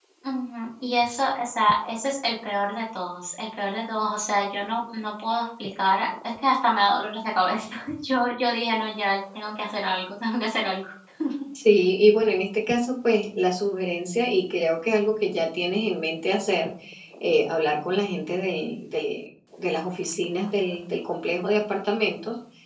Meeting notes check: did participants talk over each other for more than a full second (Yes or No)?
No